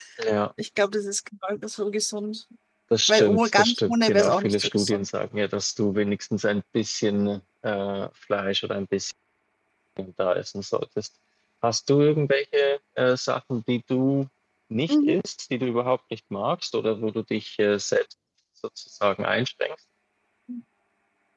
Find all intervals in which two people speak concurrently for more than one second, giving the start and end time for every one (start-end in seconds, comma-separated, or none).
3.1-5.1